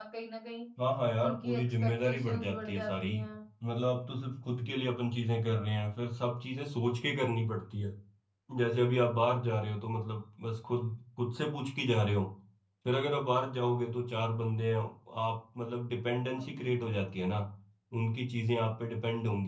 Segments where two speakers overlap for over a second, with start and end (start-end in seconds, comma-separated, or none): 1.2-3.1